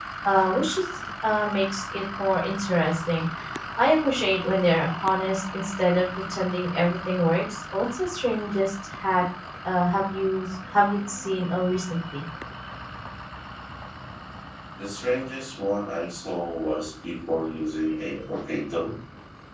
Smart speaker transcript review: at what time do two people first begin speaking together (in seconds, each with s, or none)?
none